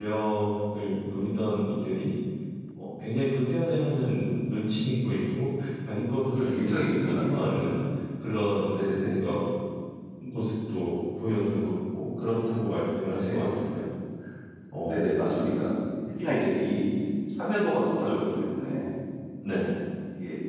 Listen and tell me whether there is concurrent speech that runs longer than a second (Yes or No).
Yes